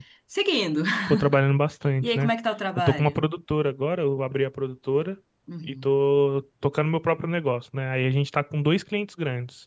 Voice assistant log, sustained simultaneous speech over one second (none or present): none